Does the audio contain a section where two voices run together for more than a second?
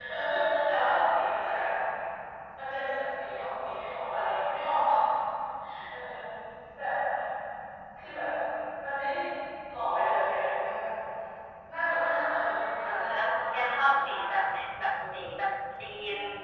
Yes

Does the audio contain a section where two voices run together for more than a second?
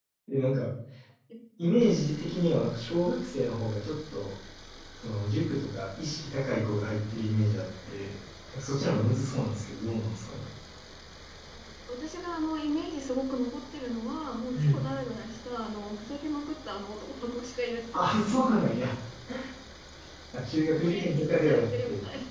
Yes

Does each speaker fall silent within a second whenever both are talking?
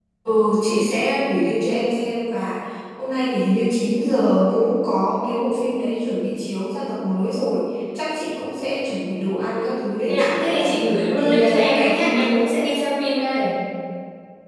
No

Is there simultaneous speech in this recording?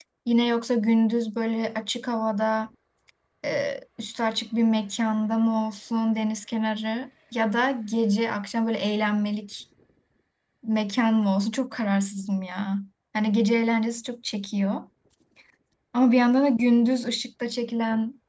No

